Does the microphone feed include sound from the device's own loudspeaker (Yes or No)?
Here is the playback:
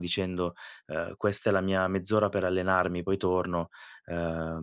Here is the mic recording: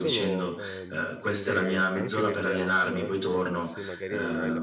Yes